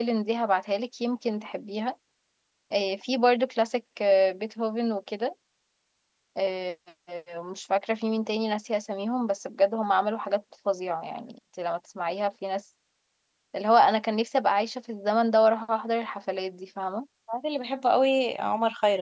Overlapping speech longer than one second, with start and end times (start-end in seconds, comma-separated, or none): none